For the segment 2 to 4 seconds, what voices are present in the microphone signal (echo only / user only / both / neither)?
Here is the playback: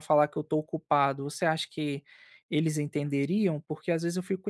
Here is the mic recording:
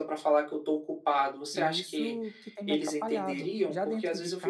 both